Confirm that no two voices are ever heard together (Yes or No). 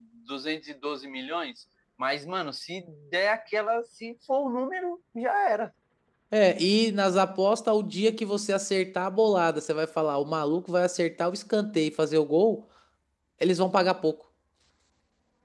Yes